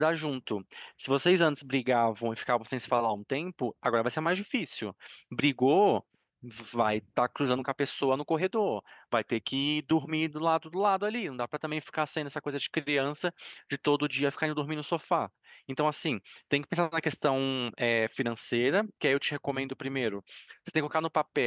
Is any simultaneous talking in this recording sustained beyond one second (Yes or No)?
No